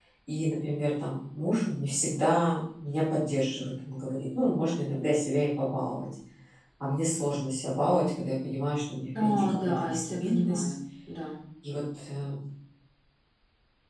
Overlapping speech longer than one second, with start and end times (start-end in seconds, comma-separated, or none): 9.2-10.6